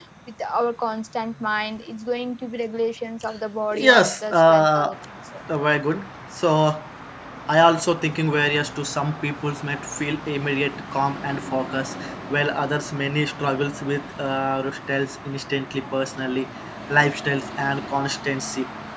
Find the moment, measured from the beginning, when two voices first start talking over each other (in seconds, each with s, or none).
3.7 s